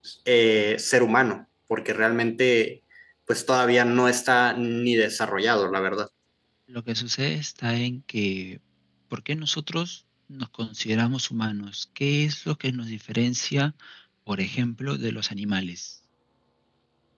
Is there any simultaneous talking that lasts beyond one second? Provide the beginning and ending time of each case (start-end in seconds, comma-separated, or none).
none